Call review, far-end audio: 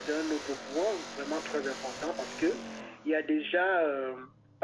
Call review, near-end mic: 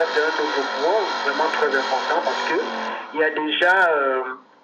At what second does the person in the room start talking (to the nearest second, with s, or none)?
none